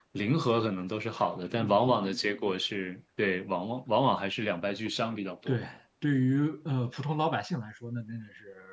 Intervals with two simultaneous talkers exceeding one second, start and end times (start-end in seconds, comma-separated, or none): none